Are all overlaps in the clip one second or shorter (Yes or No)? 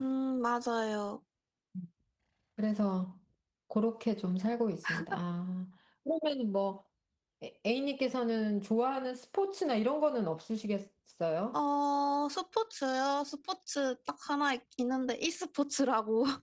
Yes